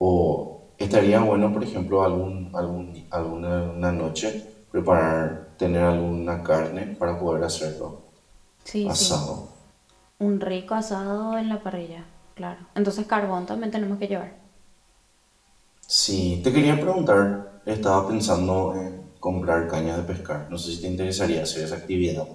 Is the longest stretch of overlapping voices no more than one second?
Yes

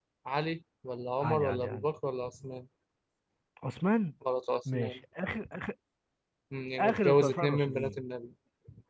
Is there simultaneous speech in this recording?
Yes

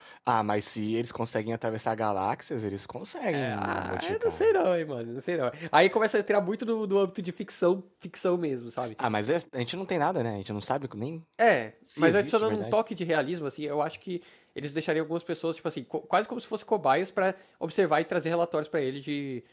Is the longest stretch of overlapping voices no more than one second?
No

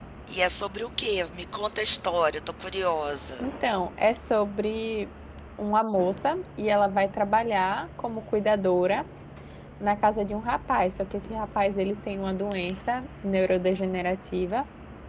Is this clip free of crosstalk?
Yes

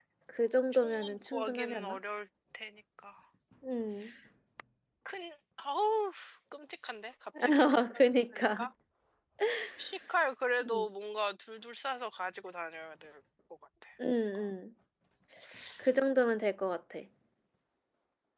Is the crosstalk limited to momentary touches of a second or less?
No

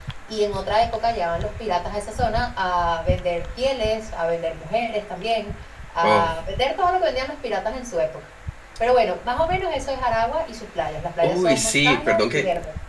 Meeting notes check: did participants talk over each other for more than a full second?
Yes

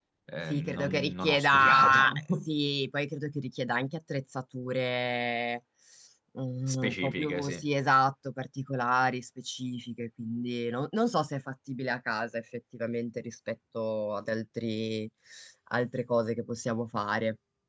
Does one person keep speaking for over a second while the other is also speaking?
Yes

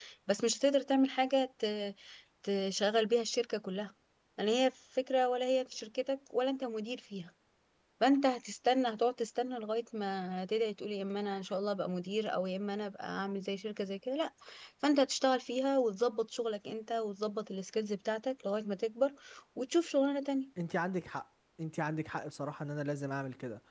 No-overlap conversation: Yes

